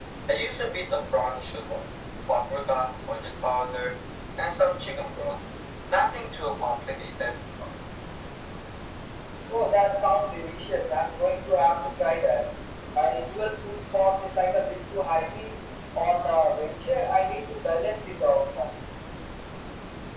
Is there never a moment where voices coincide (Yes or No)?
Yes